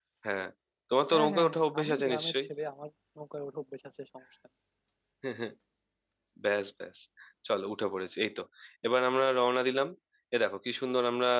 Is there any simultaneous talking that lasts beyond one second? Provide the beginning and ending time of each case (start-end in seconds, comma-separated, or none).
1.1-2.5